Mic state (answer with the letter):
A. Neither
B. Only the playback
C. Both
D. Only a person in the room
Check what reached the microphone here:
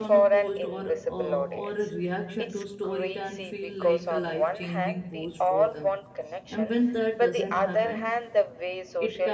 C